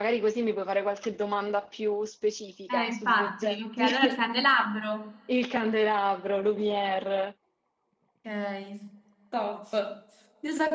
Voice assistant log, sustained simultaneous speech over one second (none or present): present